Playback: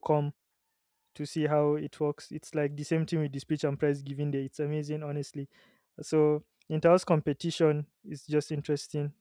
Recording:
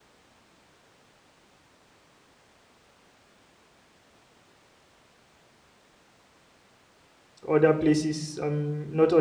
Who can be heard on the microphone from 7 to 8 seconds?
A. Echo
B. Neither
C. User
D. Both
C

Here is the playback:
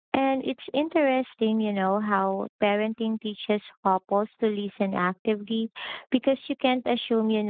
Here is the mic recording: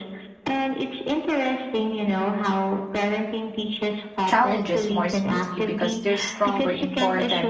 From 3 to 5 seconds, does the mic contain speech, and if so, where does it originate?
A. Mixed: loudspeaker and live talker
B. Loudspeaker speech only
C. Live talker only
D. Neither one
A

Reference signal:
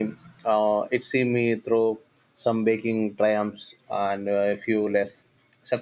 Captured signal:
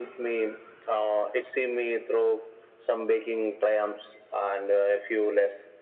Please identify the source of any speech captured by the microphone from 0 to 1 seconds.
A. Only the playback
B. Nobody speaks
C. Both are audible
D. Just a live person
A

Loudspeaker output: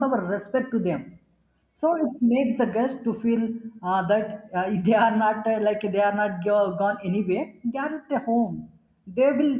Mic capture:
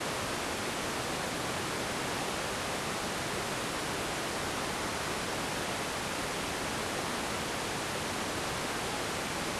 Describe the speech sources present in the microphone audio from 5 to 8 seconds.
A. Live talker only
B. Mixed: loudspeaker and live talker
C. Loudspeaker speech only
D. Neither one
D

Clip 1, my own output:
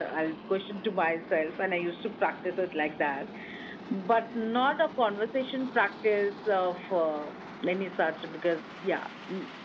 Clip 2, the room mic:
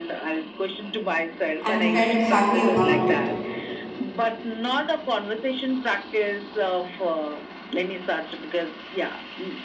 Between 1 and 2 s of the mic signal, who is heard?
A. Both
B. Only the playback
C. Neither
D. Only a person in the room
A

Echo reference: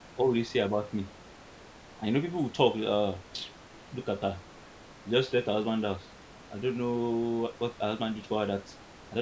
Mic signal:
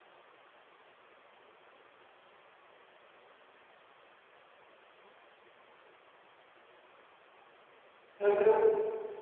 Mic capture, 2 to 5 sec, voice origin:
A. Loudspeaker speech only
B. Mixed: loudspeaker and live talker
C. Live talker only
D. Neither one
D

